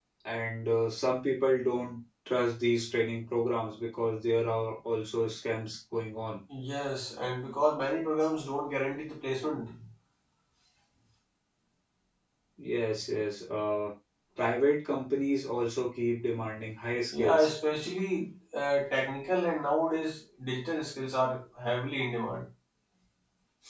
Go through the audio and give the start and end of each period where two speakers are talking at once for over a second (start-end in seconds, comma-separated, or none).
none